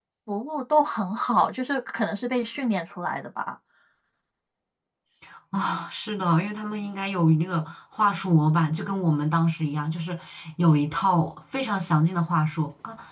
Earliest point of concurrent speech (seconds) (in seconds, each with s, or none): none